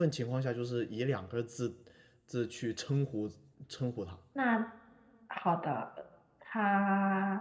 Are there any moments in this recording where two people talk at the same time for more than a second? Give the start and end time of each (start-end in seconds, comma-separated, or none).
none